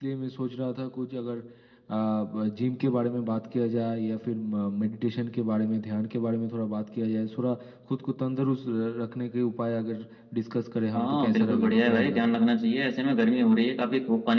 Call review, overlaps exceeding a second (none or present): present